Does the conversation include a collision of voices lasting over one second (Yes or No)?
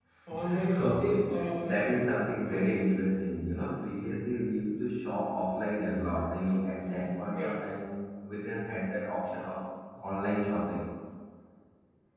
Yes